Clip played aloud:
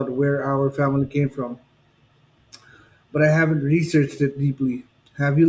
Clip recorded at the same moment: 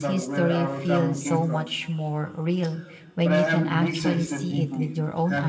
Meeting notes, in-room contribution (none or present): present